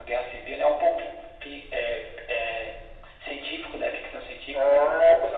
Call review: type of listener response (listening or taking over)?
taking over